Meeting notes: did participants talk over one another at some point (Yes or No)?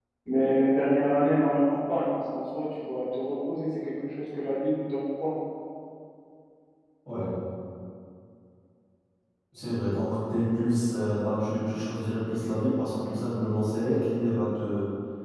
No